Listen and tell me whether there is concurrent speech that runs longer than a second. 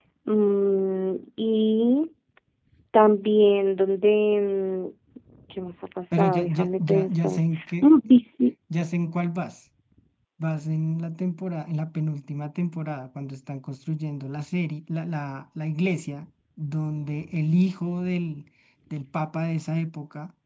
Yes, from 6.1 s

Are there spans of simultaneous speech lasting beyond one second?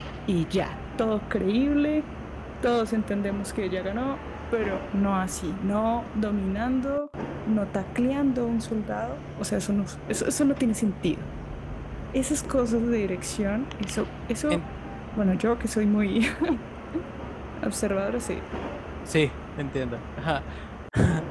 No

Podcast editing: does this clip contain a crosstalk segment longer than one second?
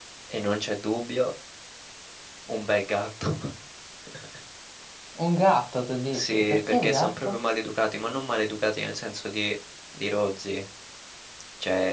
Yes, from 6.1 s

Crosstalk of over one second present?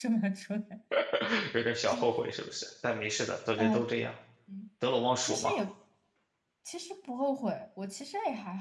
No

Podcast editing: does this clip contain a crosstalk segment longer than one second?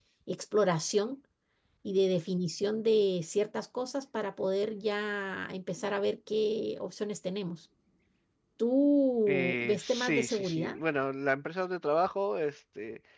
Yes, from 9.3 s

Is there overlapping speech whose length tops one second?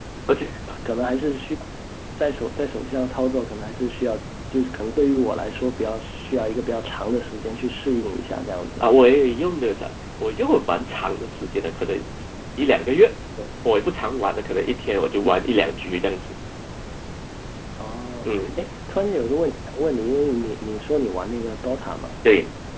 No

